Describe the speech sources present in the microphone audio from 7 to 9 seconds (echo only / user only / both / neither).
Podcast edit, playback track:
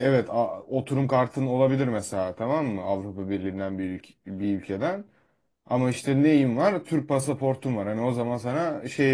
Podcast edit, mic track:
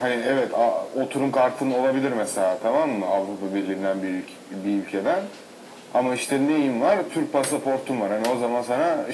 echo only